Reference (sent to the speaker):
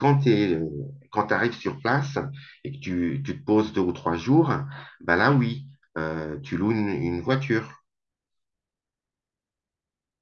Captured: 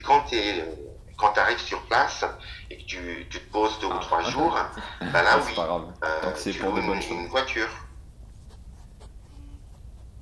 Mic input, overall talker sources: both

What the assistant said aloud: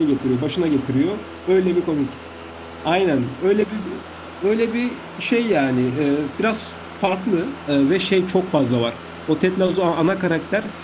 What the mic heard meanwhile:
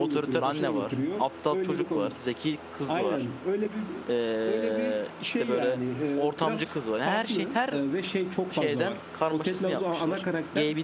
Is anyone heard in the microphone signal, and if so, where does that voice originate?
both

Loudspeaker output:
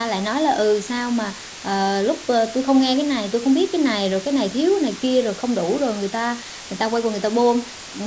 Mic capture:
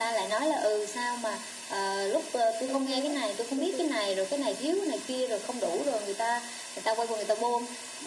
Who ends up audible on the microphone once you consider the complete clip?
both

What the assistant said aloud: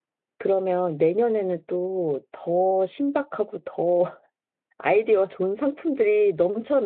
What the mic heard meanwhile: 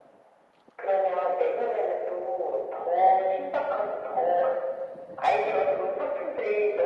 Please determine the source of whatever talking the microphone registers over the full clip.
echo only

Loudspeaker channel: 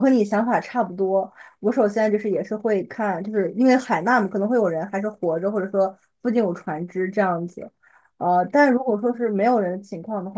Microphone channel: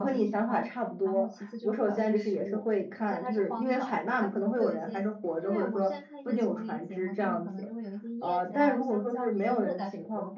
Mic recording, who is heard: both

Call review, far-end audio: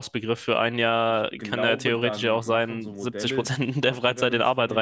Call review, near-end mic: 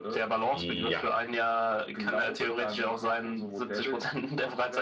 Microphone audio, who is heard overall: both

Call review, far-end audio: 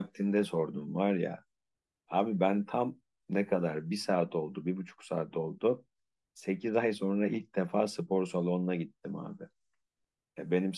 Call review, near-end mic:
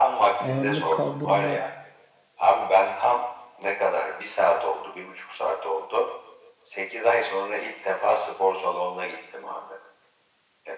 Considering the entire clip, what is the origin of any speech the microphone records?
both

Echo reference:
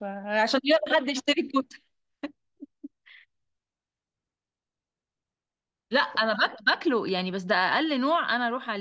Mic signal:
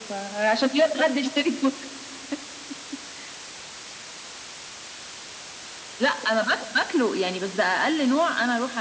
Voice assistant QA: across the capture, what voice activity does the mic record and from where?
echo only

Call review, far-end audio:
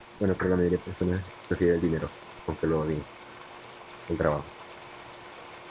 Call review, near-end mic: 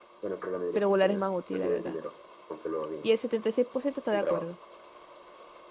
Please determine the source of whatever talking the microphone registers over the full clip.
both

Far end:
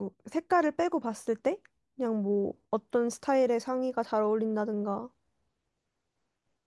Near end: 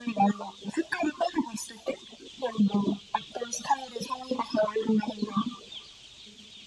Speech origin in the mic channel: echo only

